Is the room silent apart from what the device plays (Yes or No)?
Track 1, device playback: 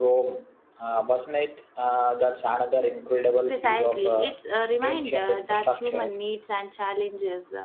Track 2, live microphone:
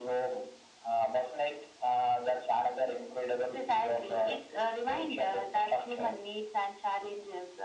Yes